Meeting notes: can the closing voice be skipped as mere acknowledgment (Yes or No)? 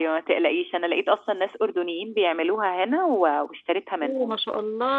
No